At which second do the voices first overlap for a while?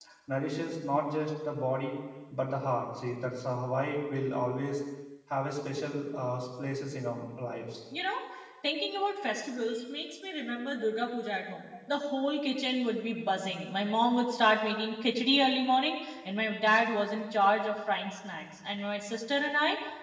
none

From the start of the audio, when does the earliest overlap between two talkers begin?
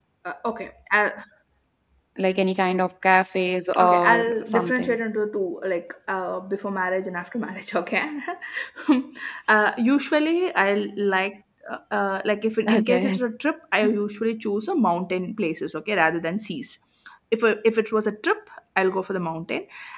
3.8 s

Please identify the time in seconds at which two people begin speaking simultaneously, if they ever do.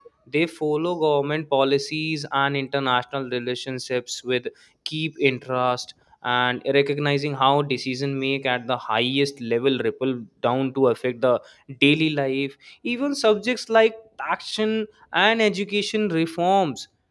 none

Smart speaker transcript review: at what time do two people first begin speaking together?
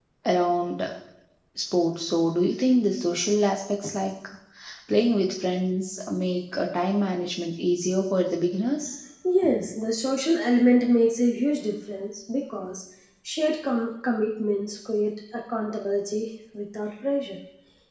none

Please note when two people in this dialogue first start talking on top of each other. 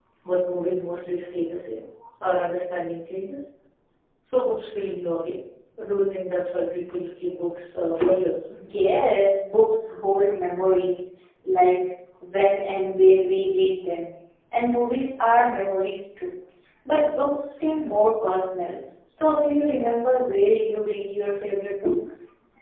none

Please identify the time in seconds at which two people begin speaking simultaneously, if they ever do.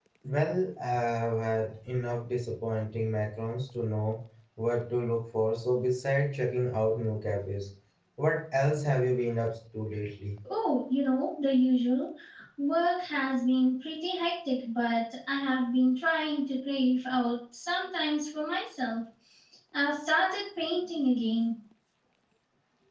none

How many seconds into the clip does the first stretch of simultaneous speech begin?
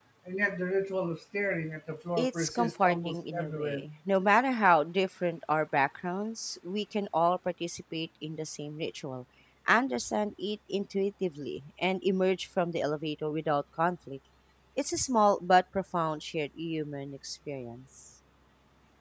2.2 s

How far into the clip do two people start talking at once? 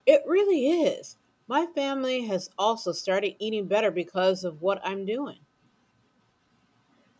none

